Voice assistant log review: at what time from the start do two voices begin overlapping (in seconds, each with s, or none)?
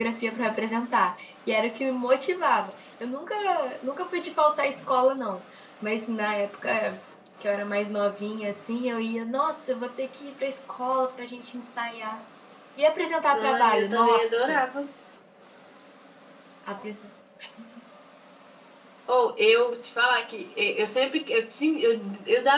13.3 s